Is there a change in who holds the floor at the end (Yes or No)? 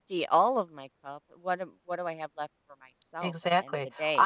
Yes